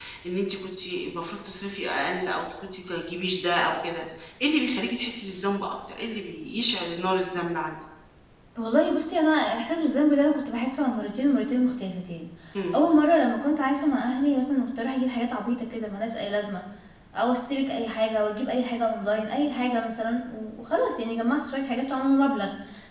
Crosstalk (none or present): none